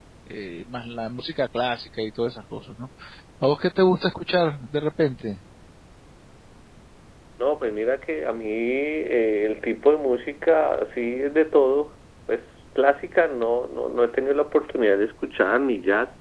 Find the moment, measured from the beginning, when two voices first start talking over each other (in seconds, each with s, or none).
none